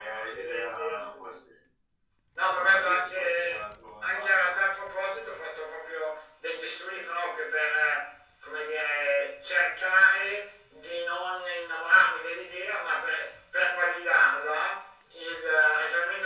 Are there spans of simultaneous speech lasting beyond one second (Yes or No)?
Yes